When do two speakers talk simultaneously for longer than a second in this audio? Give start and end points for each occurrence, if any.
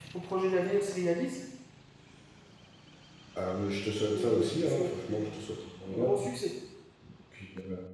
4.1-5.4

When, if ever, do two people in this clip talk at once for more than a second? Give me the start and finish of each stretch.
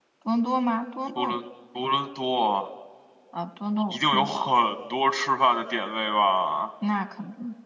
none

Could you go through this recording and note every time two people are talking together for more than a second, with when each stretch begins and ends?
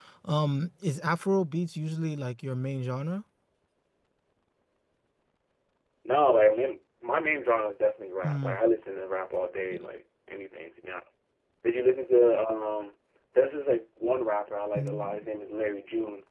none

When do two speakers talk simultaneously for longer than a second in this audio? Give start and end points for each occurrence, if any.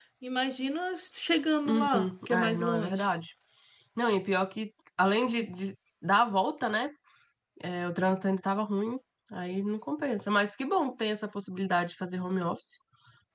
1.6-3.1

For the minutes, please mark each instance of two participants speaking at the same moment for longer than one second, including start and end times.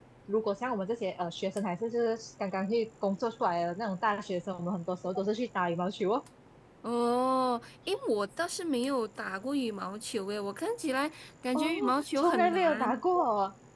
11.6-13.0

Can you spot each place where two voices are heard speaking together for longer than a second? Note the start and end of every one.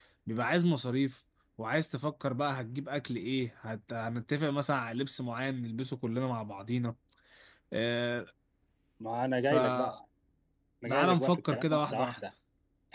10.9-12.2

